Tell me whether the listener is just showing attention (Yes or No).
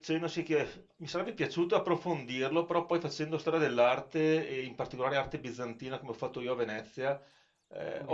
Yes